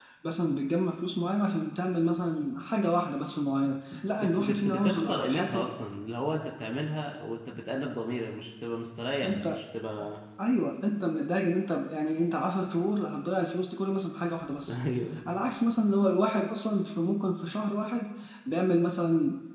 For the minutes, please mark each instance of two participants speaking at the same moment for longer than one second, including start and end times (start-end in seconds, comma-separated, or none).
3.9-5.7